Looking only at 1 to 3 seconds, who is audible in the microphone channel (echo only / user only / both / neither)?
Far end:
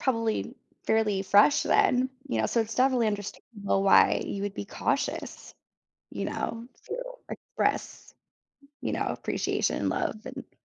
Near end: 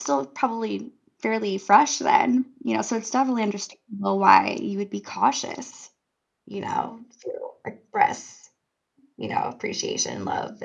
echo only